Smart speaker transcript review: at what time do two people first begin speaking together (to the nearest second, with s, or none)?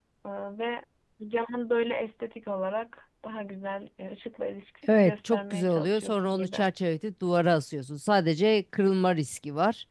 5 s